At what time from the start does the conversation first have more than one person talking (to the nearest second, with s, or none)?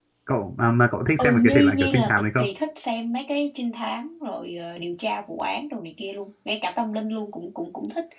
1 s